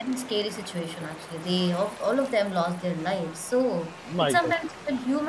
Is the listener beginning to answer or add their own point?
No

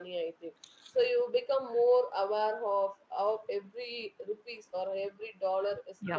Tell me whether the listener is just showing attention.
Yes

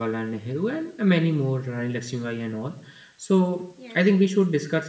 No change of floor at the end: Yes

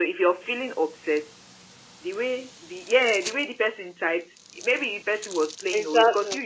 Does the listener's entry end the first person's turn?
No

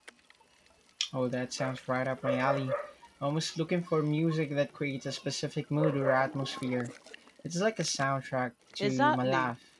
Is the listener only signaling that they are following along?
No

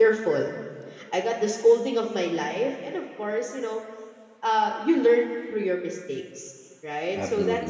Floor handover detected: No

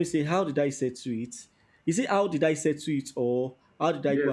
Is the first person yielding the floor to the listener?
Yes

